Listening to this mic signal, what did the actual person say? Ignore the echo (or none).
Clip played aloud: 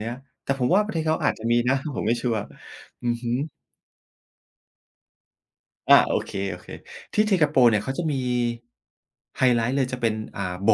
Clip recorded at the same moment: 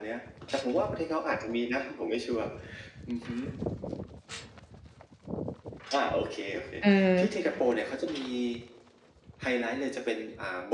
เออ